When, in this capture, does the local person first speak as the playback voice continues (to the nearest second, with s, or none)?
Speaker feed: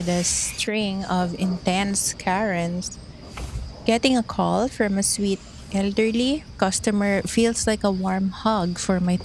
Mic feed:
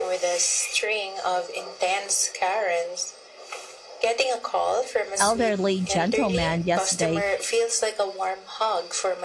5 s